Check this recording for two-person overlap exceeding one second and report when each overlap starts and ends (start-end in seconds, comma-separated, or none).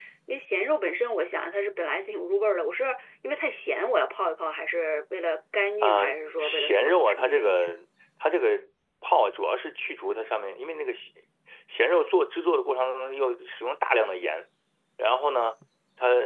5.8-7.8